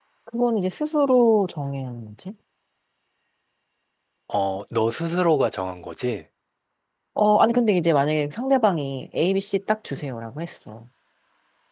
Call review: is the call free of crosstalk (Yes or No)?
Yes